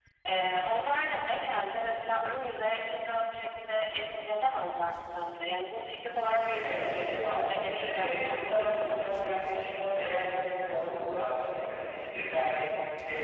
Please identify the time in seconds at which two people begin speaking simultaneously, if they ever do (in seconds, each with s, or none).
6.4 s